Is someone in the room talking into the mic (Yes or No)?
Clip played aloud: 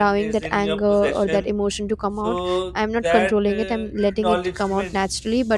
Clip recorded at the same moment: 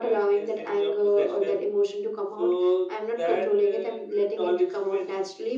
No